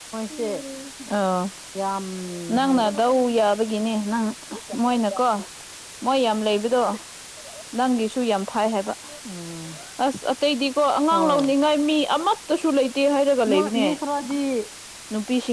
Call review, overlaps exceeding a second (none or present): none